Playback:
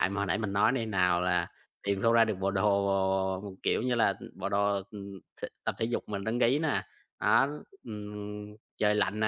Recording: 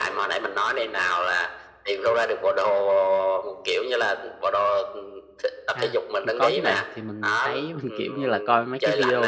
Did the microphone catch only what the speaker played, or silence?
No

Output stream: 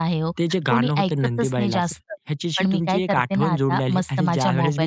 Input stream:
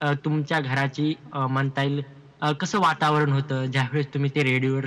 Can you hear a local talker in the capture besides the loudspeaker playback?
Yes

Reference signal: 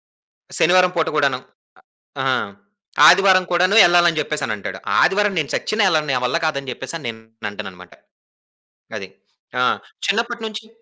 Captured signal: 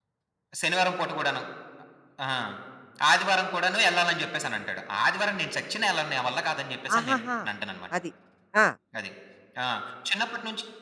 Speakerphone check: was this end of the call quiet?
No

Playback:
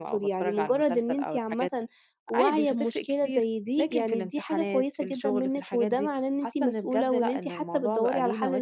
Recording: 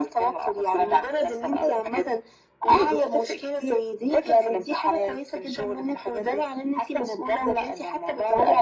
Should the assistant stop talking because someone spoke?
No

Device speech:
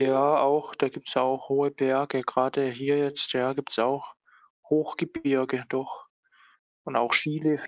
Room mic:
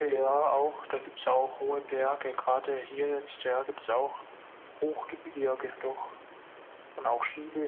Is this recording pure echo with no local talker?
Yes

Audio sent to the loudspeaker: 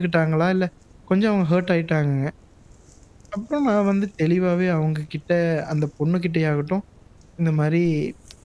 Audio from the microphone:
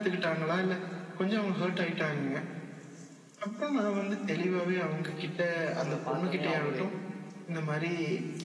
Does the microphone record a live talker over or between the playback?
Yes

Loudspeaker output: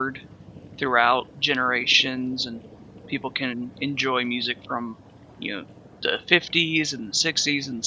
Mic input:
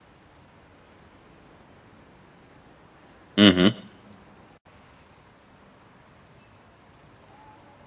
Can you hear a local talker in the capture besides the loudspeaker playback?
Yes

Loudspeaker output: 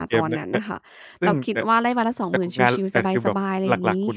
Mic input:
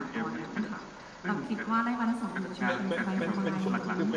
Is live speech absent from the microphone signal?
No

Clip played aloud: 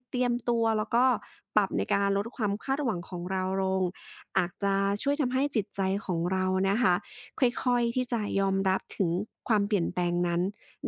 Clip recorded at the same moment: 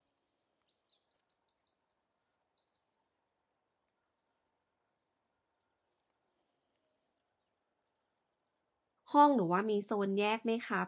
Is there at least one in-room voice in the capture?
Yes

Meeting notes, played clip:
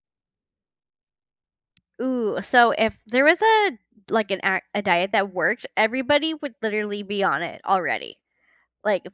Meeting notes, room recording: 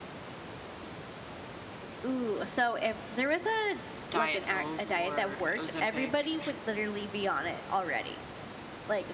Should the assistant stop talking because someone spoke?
Yes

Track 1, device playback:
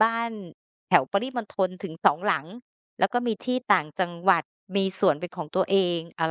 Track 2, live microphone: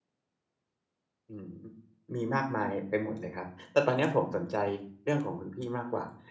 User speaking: Yes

